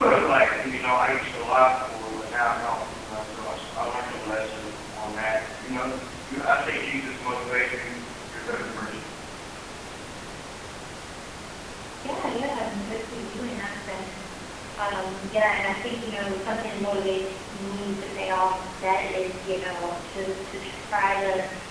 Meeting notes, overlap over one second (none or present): none